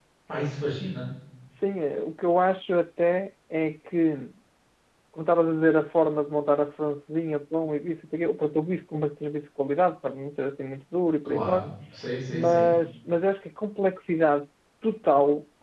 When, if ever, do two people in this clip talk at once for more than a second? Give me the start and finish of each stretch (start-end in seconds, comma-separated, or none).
none